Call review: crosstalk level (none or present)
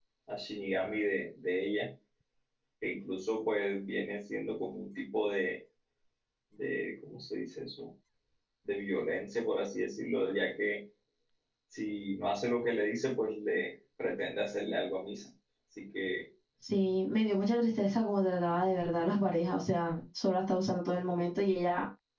none